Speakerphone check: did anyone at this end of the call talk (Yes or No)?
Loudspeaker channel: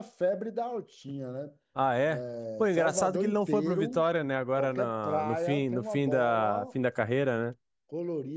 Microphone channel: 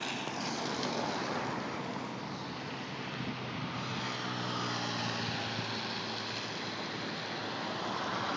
No